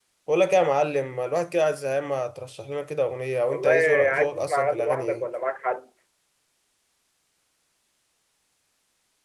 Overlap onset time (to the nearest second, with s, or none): 3 s